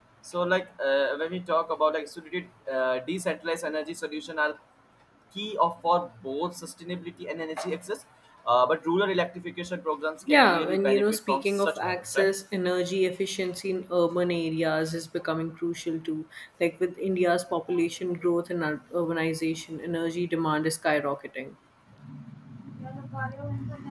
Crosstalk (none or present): present